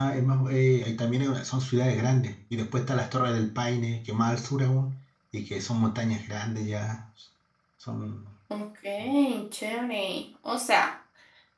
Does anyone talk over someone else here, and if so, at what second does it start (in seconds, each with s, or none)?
none